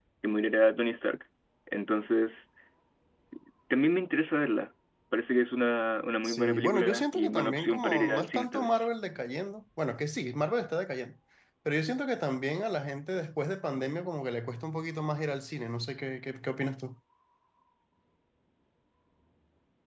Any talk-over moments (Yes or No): Yes